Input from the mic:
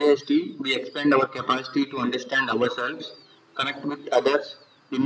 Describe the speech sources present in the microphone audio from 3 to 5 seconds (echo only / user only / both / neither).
echo only